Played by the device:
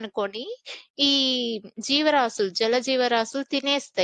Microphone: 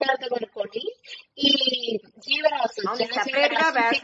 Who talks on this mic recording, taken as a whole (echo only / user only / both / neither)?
both